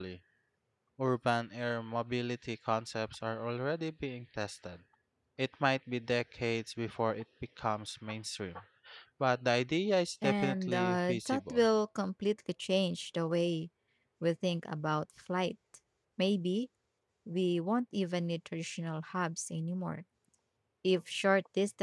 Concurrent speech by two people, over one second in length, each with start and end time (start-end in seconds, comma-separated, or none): 10.2-11.6